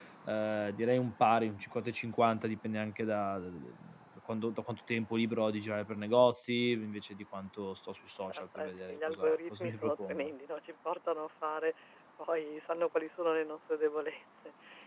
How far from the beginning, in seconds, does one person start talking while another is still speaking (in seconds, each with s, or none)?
8.3 s